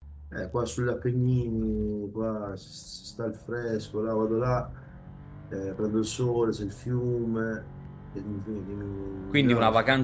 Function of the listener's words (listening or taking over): taking over